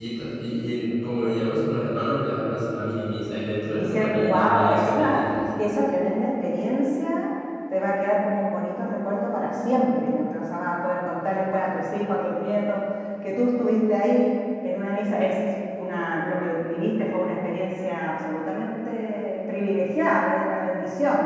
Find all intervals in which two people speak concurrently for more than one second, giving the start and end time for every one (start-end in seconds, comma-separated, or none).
3.8-5.3